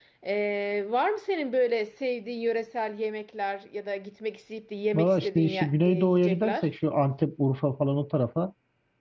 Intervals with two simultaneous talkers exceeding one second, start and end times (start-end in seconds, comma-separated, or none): 4.9-6.7